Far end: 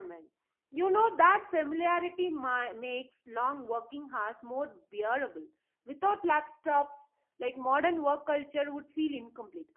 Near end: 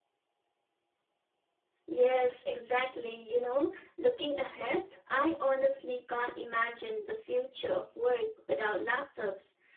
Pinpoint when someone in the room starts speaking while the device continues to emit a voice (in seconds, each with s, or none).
1.9 s